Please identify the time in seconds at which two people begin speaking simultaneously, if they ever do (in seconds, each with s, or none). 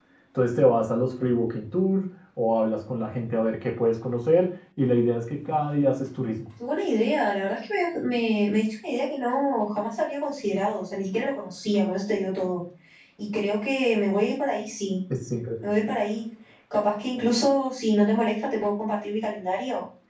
none